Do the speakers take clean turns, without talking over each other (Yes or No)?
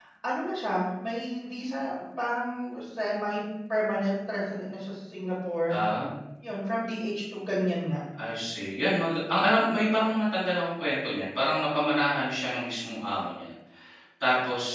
Yes